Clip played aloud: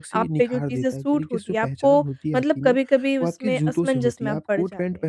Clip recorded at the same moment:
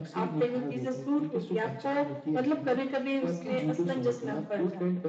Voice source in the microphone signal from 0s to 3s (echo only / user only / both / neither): echo only